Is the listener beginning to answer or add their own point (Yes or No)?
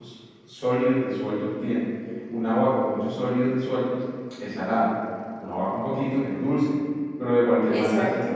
No